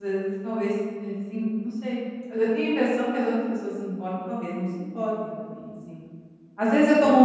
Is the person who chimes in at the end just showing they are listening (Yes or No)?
Yes